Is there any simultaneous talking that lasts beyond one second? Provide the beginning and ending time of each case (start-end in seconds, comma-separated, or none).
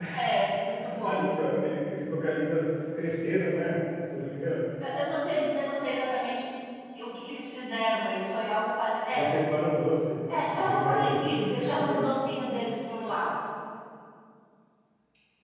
10.6-12.0